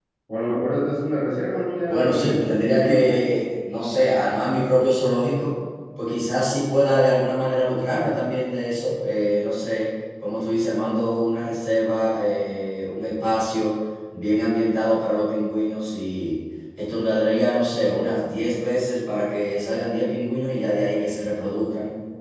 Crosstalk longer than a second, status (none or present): present